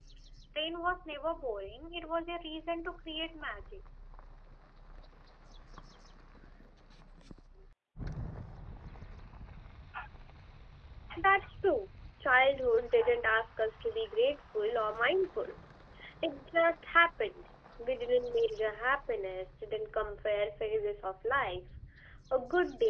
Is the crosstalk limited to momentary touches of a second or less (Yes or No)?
Yes